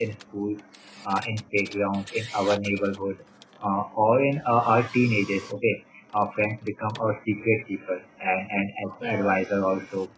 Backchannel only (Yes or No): Yes